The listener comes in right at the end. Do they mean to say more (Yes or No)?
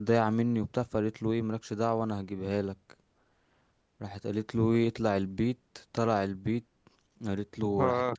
No